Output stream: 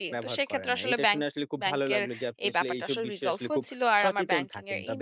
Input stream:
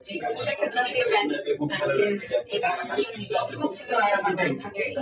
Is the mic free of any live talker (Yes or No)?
Yes